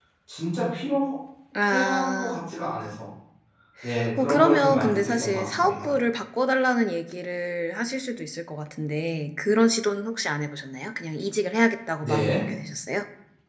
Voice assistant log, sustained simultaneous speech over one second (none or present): present